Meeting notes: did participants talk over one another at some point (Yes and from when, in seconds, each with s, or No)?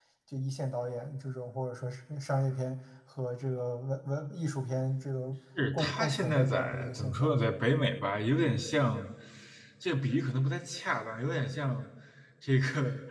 Yes, from 5.6 s